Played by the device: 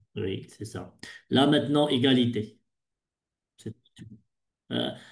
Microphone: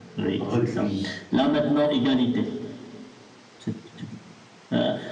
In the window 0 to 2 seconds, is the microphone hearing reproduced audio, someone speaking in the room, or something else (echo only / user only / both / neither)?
both